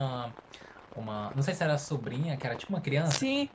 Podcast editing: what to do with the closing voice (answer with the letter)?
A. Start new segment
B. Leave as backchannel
A